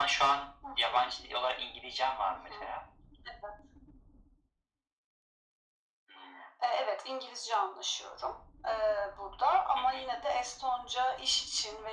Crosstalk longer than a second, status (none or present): none